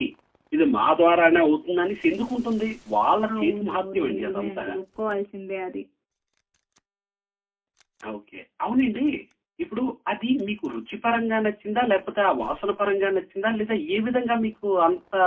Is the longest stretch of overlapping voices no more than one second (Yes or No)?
No